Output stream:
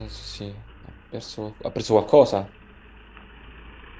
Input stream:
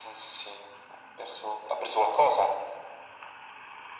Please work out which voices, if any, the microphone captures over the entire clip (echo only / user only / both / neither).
echo only